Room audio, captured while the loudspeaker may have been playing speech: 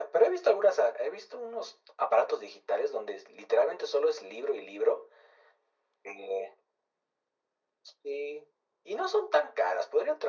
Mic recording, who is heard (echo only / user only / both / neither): echo only